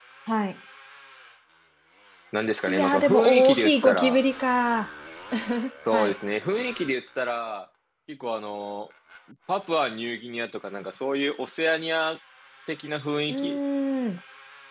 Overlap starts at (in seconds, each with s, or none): 2.7 s